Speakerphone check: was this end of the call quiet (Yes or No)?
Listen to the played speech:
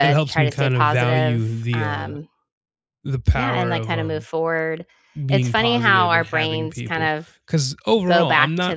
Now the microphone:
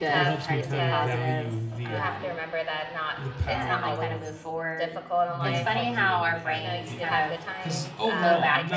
No